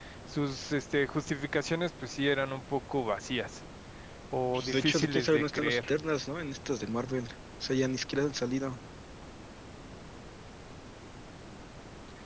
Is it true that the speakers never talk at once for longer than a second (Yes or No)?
No